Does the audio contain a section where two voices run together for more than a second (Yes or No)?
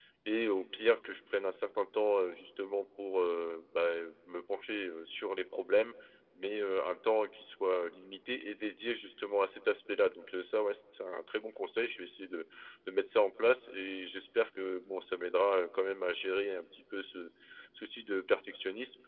No